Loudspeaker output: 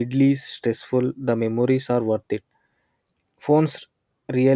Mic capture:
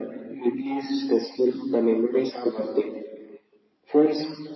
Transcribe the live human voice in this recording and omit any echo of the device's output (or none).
none